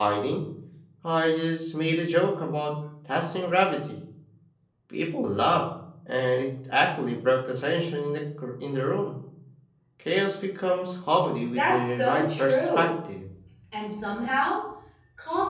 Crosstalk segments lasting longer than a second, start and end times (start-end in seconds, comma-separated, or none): 11.5-12.9